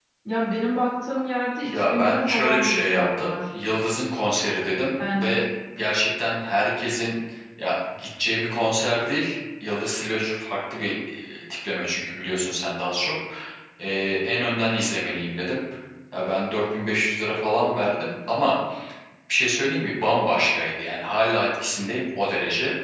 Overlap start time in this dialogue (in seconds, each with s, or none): 1.7 s